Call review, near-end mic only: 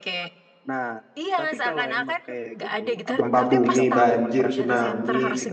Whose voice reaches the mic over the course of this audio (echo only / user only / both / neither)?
both